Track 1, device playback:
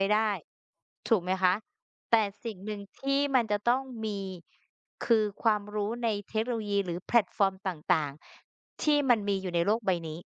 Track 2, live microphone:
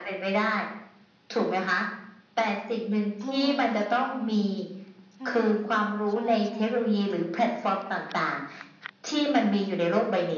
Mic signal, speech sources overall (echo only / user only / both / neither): both